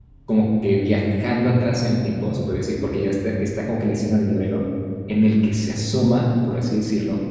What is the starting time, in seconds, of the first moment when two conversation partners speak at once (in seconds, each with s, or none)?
none